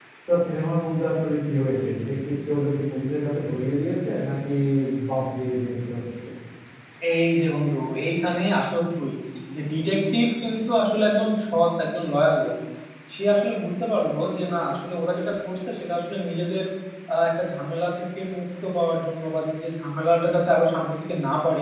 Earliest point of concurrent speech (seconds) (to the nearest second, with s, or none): none